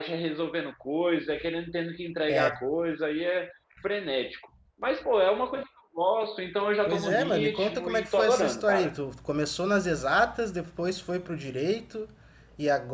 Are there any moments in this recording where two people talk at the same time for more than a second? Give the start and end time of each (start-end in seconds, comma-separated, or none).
6.9-8.9